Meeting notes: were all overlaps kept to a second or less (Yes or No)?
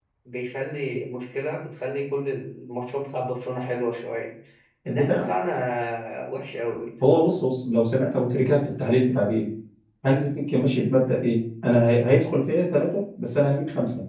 Yes